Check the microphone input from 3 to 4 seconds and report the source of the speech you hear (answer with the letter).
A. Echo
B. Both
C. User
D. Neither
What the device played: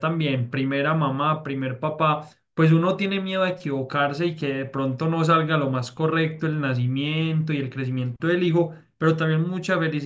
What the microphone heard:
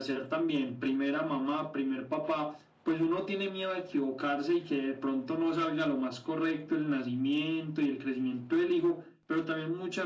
A